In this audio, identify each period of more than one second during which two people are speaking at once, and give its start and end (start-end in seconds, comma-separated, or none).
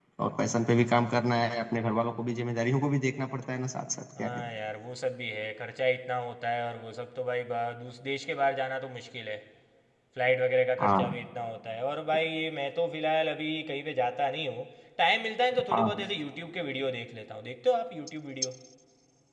none